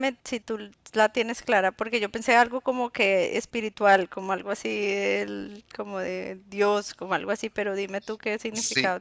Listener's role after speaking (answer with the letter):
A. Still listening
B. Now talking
B